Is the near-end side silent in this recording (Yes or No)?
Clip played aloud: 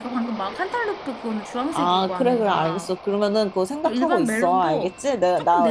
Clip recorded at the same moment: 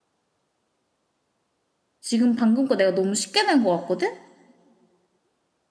No